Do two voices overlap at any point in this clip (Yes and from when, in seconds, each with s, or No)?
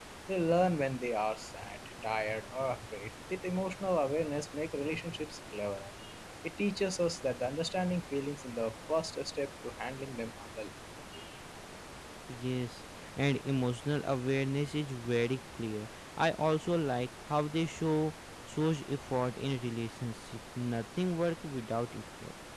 No